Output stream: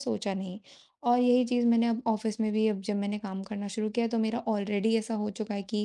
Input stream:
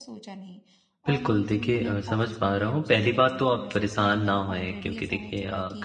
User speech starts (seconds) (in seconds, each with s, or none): 1.1 s